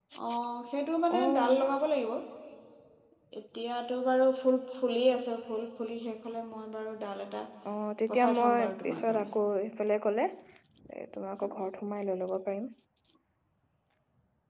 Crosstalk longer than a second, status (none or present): present